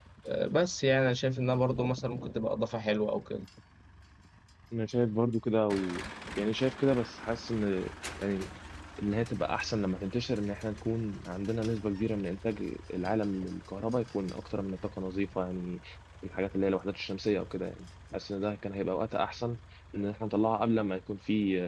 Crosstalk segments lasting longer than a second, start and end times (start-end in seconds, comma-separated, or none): none